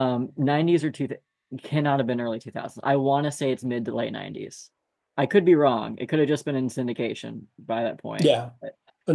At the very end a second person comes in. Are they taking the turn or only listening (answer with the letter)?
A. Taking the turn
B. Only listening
A